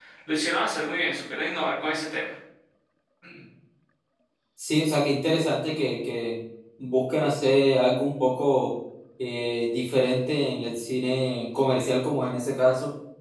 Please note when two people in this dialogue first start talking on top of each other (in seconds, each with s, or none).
none